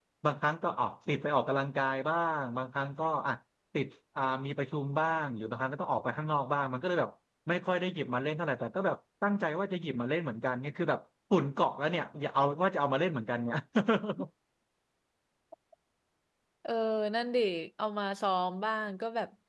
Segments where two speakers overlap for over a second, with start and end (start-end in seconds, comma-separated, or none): none